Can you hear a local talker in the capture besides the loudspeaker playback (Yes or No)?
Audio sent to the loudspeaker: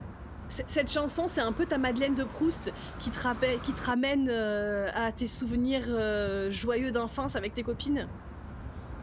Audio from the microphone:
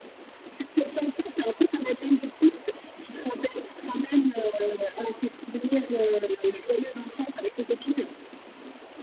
No